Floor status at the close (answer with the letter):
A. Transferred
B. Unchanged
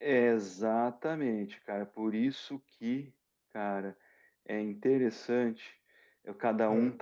B